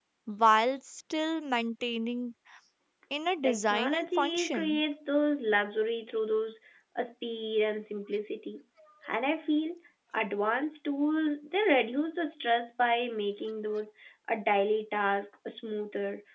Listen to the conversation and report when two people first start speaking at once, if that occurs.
3.4 s

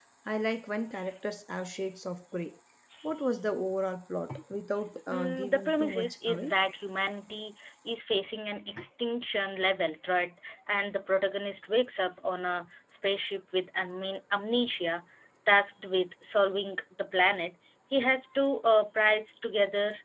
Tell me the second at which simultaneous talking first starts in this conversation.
5.1 s

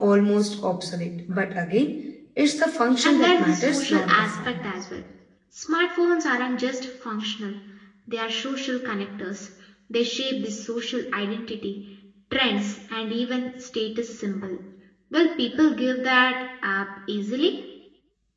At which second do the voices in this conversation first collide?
3.0 s

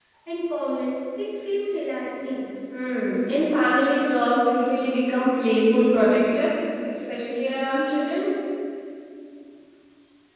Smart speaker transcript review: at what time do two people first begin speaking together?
none

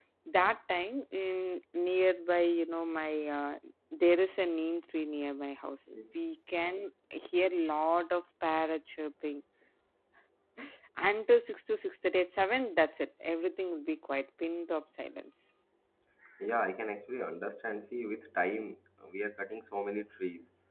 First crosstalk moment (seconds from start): none

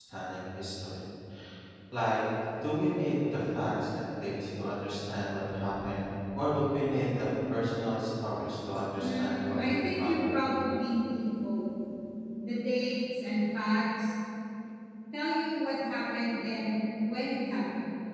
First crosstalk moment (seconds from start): 9.0 s

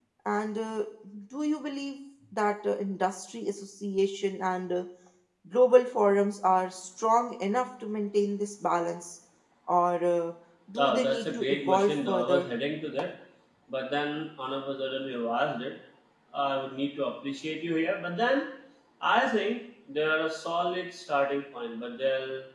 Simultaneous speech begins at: 10.8 s

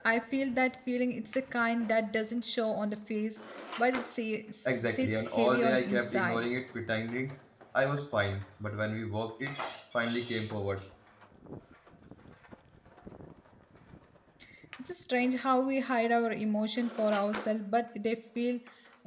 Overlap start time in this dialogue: 4.7 s

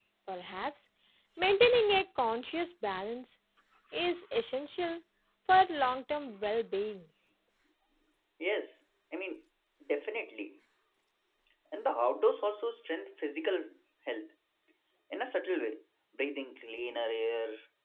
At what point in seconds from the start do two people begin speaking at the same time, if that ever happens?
none

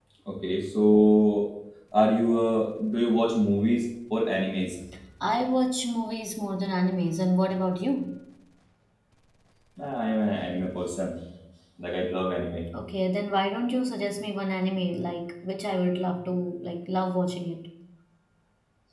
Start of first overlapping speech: none

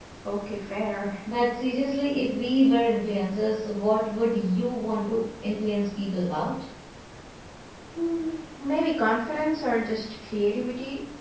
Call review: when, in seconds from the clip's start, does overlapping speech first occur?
none

